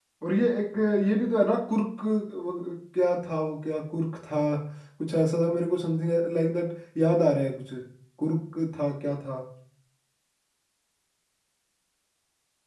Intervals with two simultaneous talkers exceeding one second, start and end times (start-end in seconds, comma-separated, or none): none